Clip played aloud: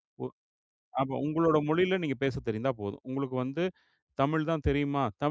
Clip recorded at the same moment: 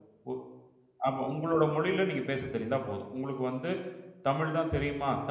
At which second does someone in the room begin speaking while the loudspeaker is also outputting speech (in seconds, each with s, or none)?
none